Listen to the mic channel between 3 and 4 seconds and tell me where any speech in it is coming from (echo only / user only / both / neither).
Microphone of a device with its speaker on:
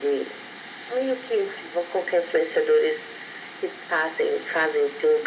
echo only